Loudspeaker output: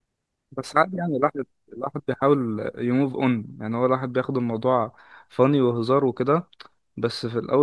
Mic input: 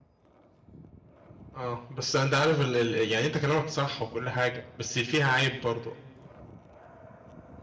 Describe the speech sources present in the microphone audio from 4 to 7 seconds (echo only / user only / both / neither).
user only